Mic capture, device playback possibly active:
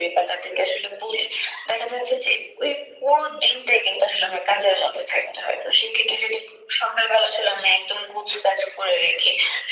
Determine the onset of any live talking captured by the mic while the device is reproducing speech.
none

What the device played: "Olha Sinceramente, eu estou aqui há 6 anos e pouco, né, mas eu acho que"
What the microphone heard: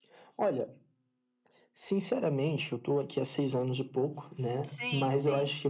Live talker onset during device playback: 5 s

